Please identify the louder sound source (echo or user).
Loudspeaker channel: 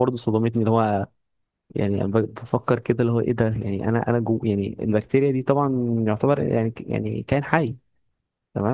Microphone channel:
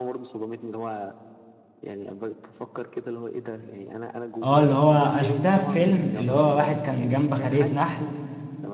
user